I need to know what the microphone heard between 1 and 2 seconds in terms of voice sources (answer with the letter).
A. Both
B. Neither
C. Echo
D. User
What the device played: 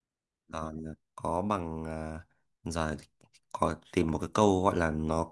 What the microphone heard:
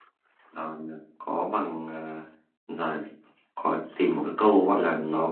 C